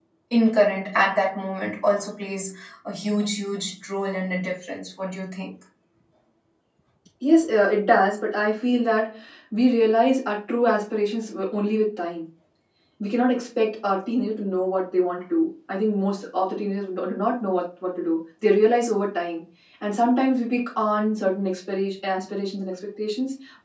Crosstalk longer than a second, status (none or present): none